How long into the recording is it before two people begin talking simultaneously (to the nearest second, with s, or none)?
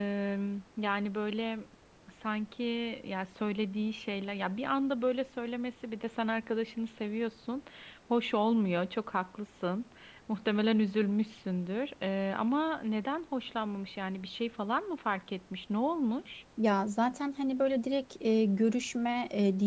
none